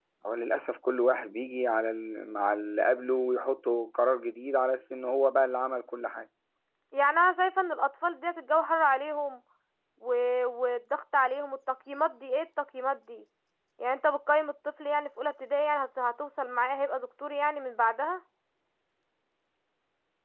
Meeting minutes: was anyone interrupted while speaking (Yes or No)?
No